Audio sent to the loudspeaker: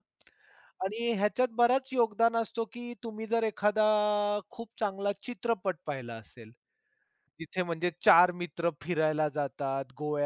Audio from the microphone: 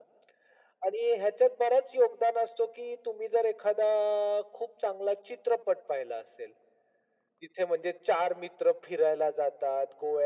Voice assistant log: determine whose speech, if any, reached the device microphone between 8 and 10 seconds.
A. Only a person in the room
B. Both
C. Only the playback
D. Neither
C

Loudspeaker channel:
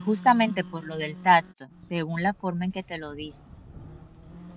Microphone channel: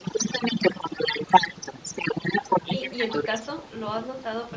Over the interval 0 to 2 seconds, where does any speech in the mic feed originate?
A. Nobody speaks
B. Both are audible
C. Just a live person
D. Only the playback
D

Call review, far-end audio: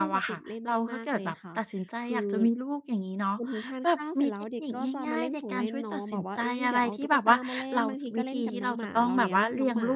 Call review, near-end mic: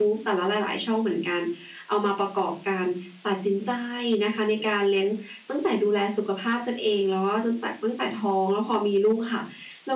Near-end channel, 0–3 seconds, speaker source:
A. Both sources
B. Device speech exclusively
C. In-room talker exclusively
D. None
C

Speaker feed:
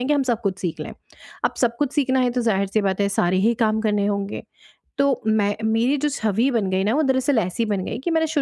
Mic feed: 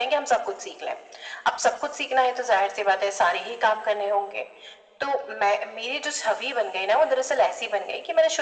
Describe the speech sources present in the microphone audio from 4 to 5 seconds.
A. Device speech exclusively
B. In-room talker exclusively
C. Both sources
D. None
A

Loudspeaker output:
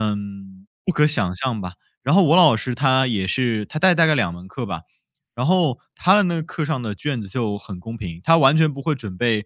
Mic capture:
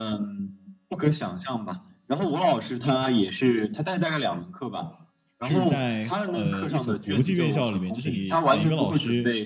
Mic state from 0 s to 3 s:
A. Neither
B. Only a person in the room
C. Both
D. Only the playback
D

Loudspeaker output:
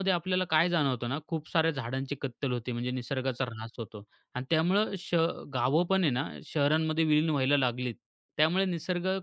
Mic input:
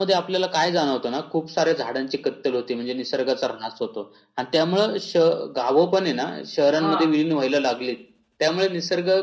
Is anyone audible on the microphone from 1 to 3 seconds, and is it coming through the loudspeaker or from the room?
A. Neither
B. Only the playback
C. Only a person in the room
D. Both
B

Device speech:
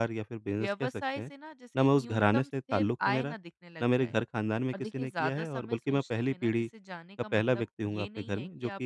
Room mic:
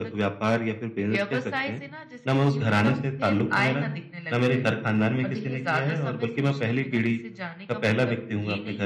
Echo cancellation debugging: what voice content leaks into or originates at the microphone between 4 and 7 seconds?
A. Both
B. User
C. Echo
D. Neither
C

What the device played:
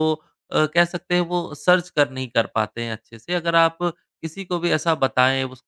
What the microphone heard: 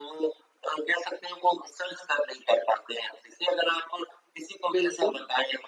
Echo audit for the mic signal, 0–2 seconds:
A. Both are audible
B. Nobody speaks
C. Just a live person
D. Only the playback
D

